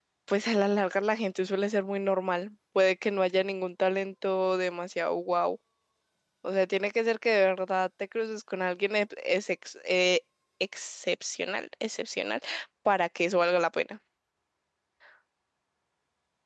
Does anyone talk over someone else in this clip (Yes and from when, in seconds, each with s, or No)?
No